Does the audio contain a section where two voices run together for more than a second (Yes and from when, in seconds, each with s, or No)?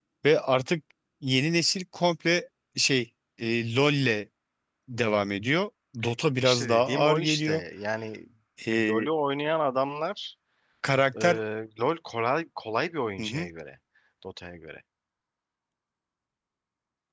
Yes, from 6.4 s